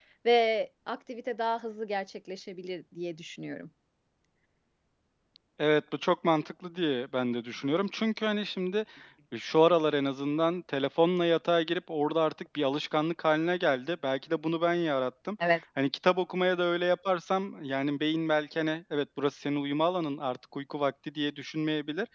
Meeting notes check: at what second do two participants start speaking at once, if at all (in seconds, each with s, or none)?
none